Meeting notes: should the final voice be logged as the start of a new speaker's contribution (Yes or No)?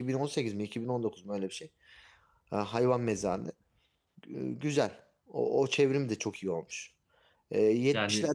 No